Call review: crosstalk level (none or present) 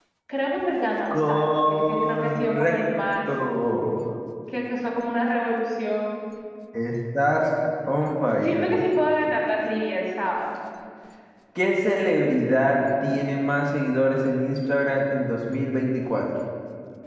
present